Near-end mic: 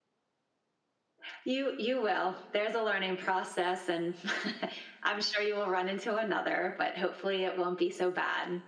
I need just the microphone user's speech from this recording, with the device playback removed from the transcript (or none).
none